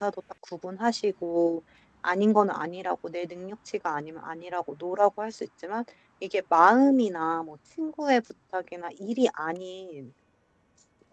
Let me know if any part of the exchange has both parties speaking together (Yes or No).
No